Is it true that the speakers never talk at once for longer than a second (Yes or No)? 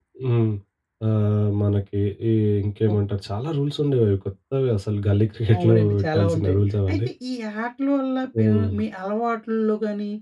No